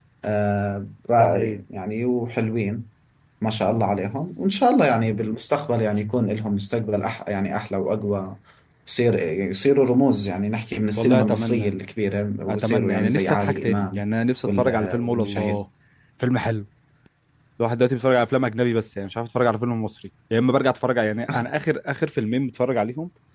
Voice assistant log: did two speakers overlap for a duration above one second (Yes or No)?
Yes